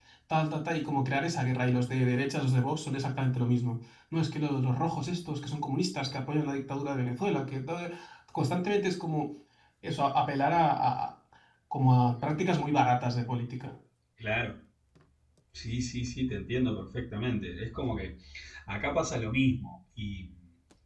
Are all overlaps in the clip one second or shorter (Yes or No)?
Yes